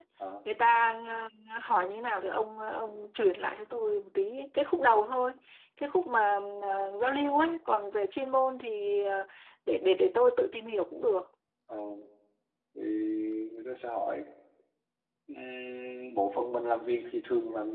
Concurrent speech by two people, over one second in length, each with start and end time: none

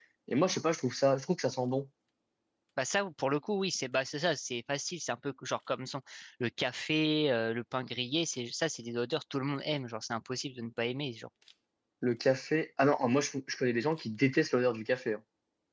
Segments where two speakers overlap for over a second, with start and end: none

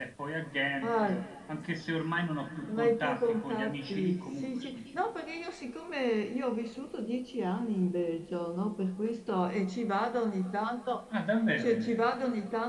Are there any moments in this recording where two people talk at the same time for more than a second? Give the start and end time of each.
2.8-4.8

